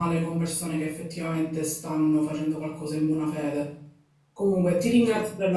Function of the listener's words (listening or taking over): listening